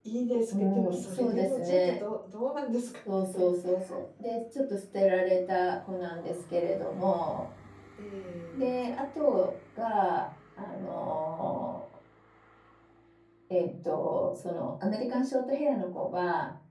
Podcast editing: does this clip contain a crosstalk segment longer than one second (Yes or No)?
Yes